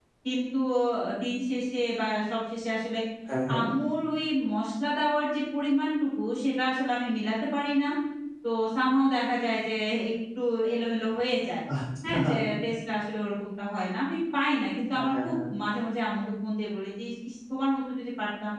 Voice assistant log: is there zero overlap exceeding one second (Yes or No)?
Yes